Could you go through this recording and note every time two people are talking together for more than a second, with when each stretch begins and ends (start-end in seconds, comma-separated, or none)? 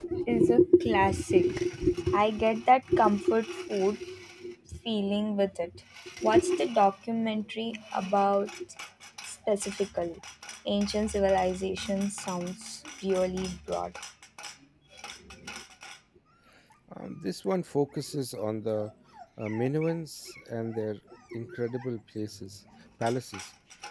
none